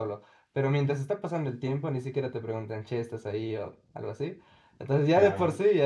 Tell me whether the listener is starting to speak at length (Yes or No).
No